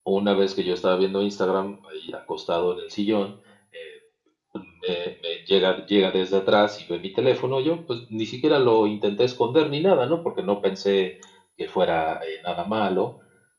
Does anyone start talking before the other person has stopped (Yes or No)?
No